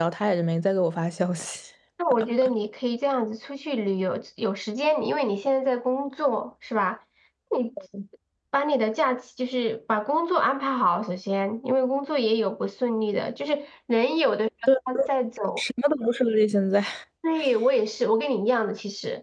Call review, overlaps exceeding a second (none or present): none